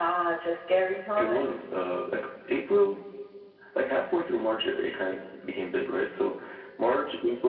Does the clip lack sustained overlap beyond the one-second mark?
Yes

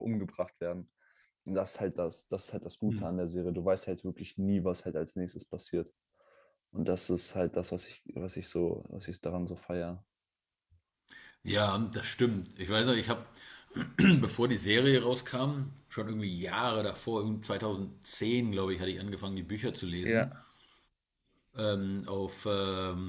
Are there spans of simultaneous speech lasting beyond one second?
No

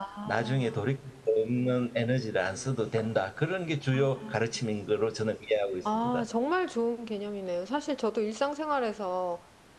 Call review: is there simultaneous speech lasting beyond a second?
No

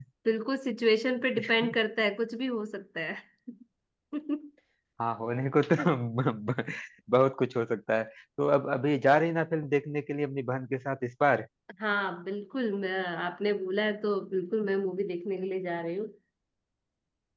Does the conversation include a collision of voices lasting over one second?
No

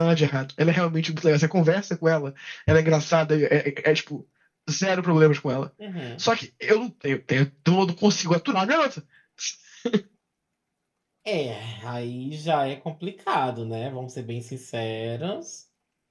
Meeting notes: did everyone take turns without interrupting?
Yes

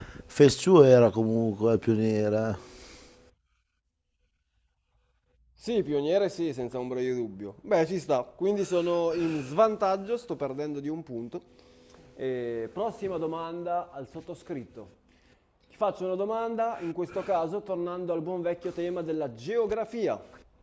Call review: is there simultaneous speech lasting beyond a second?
No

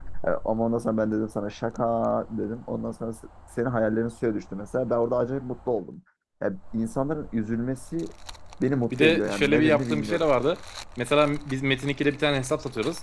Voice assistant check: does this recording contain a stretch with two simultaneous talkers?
Yes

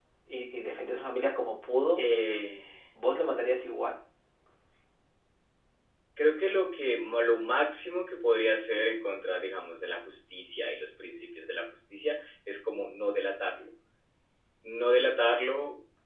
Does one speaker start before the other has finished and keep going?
No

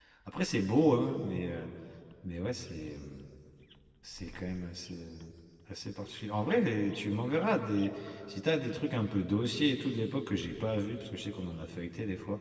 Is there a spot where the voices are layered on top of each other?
No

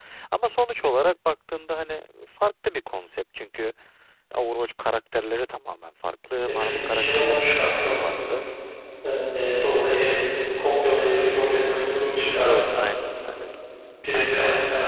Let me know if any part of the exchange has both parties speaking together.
Yes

